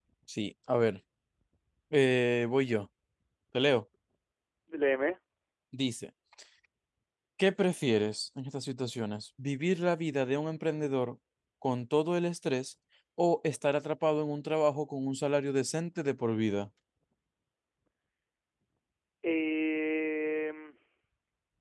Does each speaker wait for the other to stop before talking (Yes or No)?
Yes